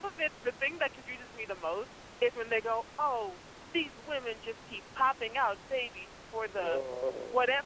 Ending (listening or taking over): listening